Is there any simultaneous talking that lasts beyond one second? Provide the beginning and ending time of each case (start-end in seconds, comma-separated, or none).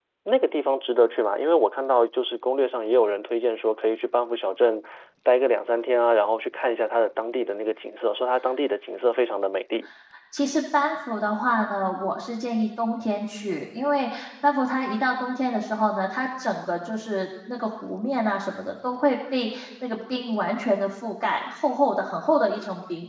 none